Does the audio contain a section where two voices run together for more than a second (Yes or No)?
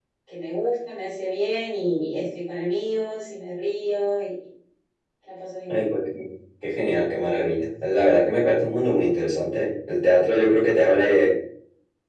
No